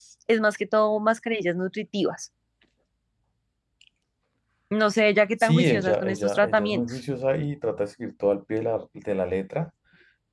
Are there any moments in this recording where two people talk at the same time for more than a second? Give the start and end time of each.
5.4-6.8

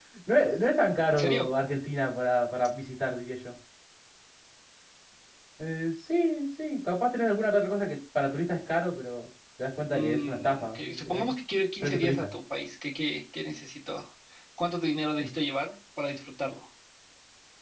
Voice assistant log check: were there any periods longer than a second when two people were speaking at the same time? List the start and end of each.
9.9-11.3

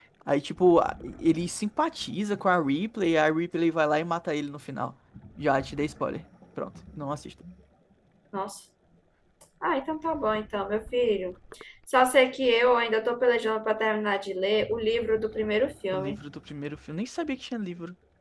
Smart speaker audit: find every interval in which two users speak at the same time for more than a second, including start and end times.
none

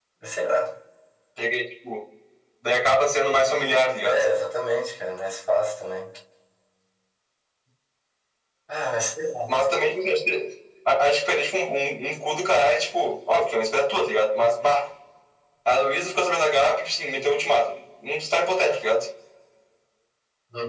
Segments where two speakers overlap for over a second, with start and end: none

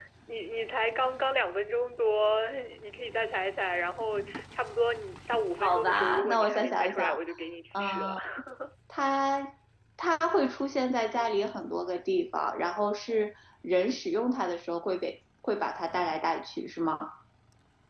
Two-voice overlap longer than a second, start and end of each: 5.6-7.2

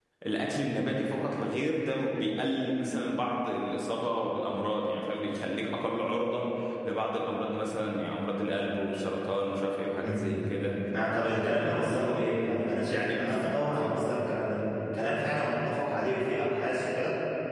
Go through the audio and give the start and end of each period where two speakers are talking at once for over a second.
11.4-14.0

